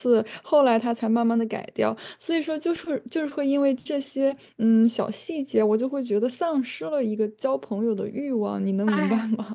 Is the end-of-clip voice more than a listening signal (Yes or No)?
Yes